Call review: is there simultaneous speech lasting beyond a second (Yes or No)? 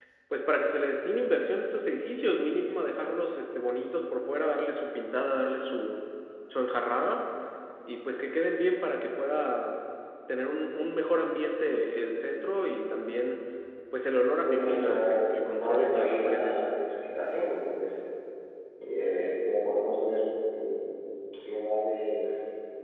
Yes